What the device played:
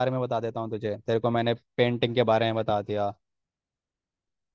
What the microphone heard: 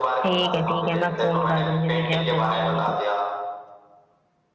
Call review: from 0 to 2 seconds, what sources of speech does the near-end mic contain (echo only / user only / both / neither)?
both